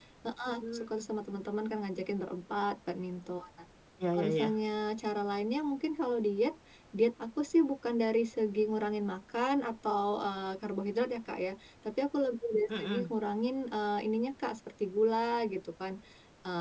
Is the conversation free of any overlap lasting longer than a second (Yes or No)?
Yes